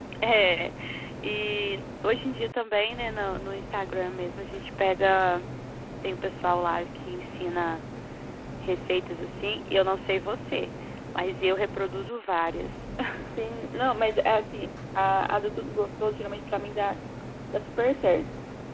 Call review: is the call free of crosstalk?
Yes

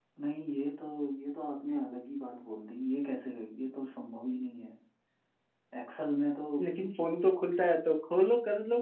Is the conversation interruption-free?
Yes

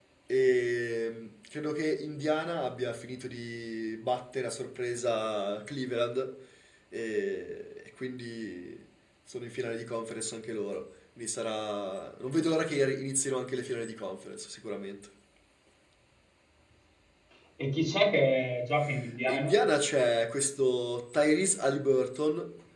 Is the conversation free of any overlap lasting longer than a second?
Yes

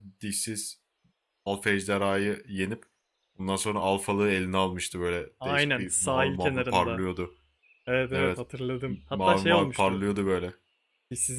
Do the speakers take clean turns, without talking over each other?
No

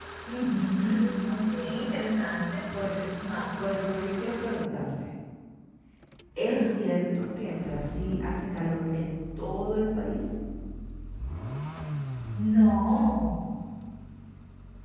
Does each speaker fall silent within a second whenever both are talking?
Yes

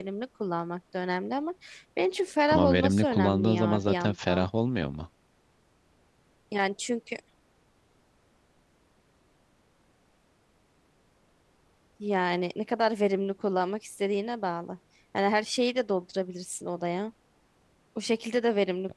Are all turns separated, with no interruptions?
No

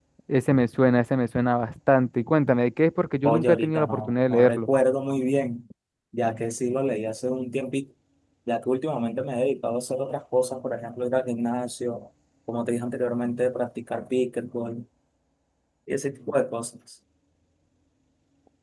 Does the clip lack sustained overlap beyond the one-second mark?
No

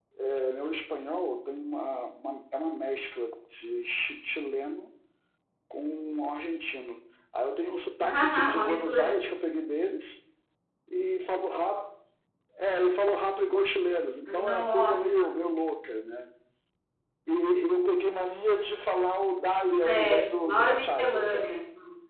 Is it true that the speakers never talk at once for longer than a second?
No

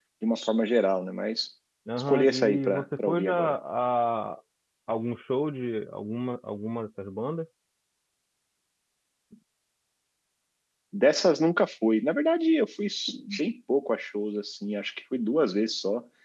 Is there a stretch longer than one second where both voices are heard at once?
Yes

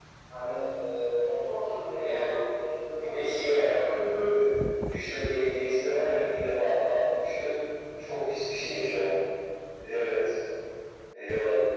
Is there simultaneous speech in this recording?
Yes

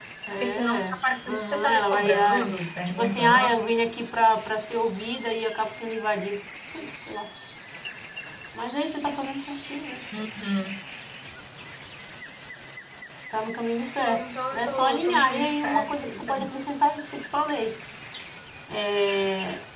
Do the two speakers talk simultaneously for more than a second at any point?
Yes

